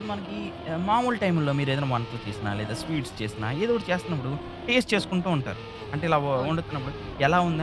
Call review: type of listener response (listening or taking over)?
listening